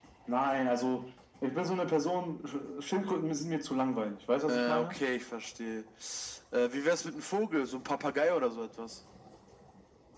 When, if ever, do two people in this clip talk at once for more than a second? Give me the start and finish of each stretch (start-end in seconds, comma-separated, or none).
none